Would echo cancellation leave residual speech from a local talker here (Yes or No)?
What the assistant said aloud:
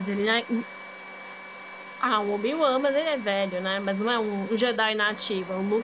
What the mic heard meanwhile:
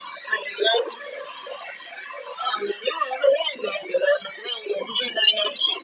No